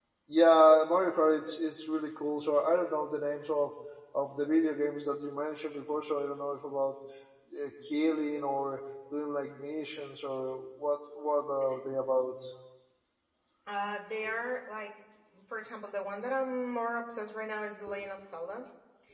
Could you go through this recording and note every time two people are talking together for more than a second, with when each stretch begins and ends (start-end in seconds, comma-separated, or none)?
none